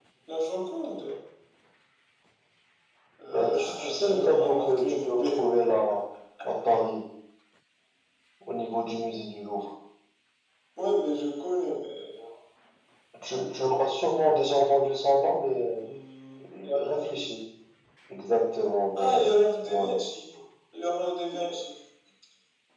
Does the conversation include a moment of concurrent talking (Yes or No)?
Yes